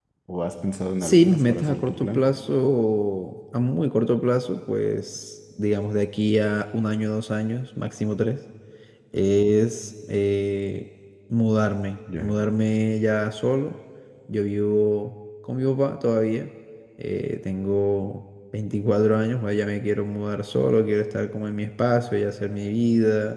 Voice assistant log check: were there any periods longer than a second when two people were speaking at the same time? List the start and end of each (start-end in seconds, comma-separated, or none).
1.0-2.2